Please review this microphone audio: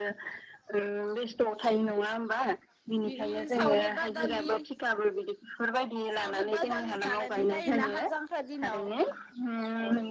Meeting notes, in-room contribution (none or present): none